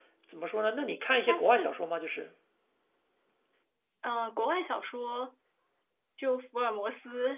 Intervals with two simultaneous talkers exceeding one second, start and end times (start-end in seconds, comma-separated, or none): none